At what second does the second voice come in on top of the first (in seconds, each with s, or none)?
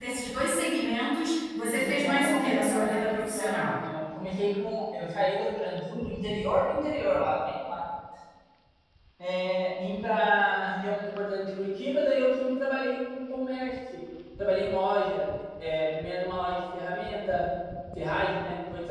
1.7 s